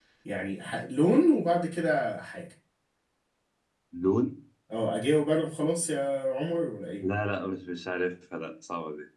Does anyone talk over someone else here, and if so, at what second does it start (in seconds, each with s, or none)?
none